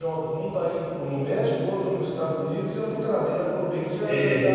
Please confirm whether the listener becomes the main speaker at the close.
Yes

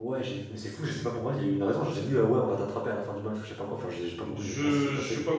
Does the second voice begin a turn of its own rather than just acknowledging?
Yes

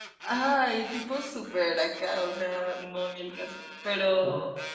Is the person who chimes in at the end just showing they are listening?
Yes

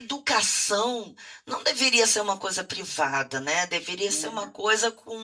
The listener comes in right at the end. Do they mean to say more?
No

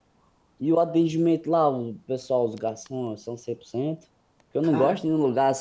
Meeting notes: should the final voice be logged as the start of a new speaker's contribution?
No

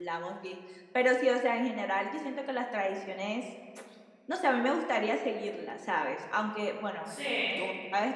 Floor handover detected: No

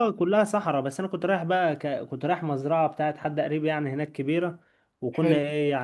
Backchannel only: Yes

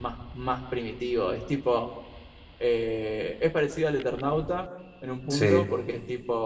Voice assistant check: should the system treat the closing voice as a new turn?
No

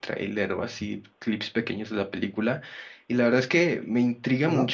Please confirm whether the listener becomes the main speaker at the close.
No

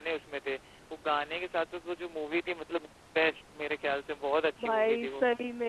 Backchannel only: No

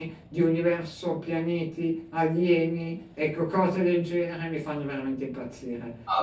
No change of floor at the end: No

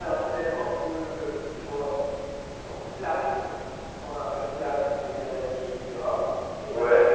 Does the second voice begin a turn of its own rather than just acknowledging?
No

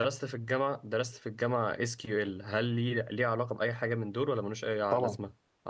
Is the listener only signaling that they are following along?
No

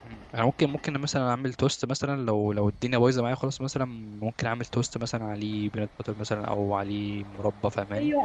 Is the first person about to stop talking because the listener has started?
Yes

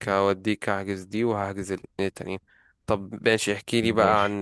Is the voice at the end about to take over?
No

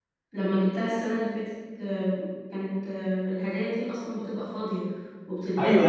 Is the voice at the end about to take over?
Yes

